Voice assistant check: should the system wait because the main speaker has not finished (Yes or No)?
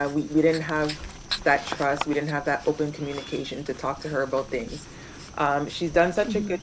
Yes